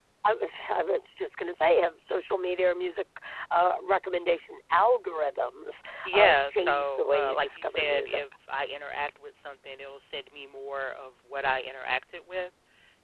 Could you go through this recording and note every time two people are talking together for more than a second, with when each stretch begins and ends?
6.0-8.2

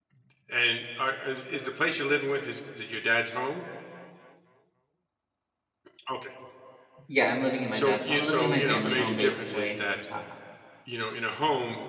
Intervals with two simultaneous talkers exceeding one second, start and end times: 7.7-9.8

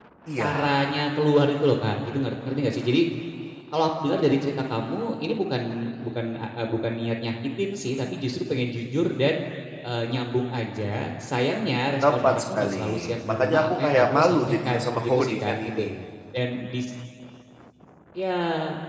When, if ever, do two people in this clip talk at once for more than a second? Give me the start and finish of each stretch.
12.0-15.8

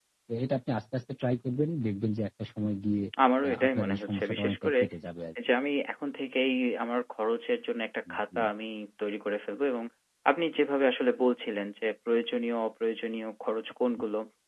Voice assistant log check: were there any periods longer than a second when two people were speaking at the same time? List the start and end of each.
3.4-4.8

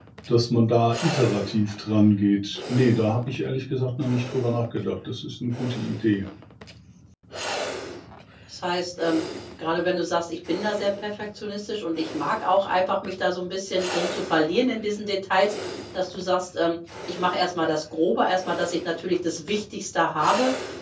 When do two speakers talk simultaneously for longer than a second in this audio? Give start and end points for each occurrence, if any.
none

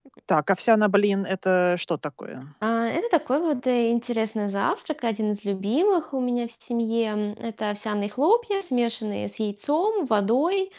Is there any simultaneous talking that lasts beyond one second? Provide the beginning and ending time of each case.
none

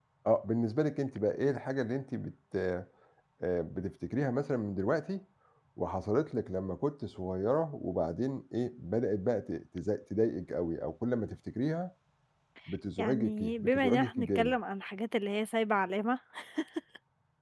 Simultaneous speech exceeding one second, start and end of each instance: 13.0-14.6

